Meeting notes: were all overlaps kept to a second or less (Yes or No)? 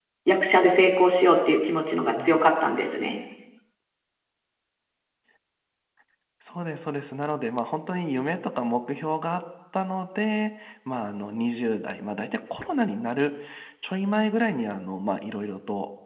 Yes